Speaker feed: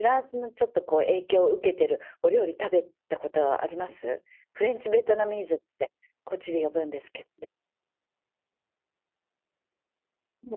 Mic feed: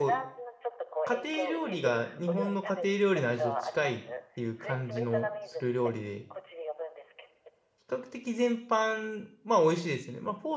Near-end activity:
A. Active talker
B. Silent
A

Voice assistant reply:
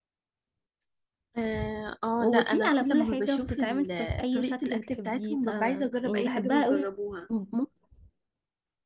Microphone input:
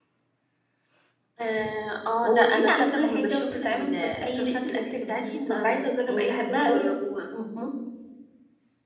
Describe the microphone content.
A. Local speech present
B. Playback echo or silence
B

